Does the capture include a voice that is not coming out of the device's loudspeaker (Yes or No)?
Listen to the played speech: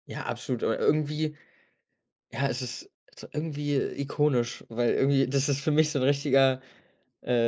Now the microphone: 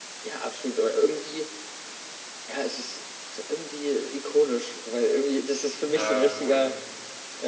Yes